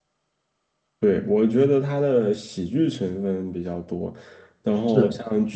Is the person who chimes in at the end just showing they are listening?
Yes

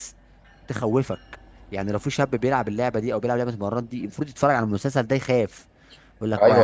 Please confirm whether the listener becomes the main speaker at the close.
Yes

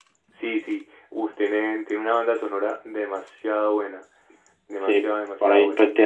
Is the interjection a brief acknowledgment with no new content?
No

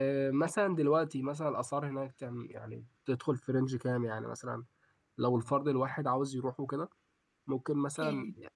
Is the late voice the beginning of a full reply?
No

